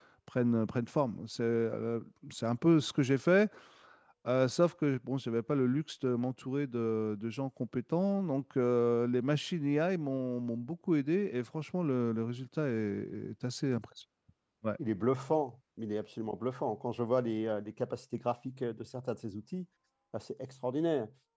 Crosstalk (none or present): none